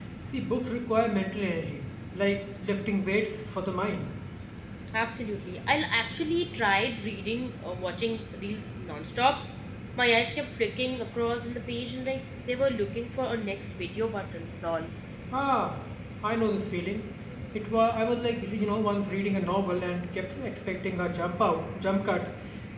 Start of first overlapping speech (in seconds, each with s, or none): none